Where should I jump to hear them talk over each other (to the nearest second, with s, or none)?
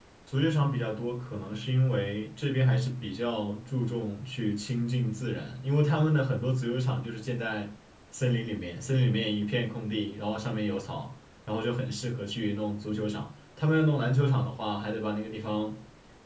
none